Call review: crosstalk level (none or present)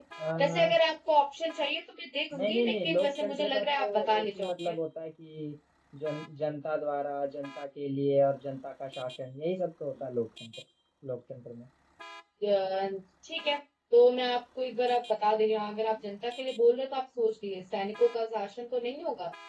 present